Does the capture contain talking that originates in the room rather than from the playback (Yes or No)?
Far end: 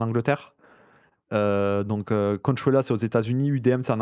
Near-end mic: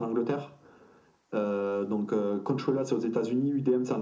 No